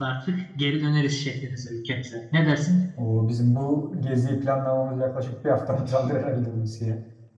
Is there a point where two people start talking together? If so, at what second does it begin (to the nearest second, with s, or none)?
none